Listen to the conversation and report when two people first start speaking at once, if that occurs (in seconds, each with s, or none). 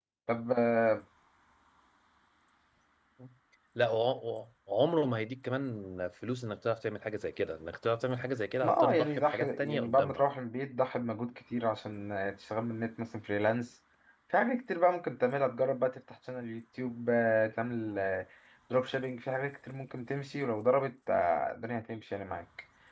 8.6 s